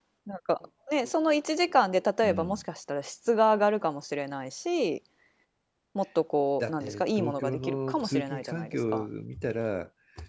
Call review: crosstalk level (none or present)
present